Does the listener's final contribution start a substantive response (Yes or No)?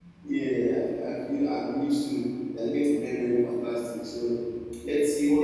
No